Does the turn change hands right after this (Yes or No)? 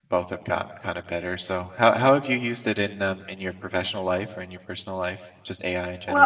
Yes